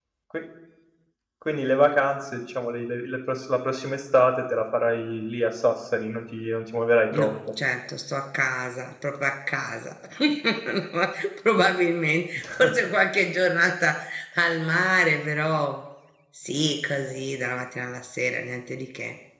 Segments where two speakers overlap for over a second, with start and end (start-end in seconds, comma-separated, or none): none